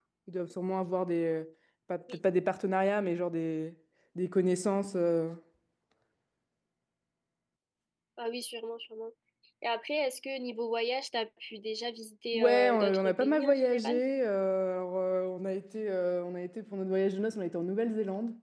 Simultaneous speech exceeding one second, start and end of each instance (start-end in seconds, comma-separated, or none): 12.3-14.0